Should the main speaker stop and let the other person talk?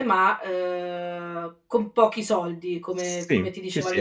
Yes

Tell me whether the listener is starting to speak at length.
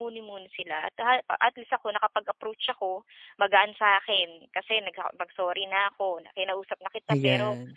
No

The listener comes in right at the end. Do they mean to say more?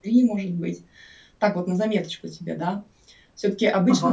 No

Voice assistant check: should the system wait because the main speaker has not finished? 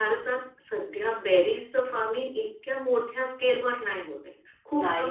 Yes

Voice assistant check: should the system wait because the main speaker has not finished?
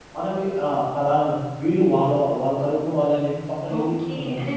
No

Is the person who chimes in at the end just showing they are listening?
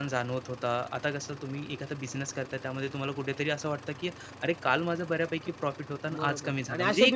No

